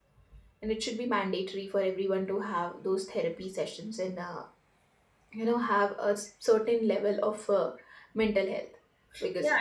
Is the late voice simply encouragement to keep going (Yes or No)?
No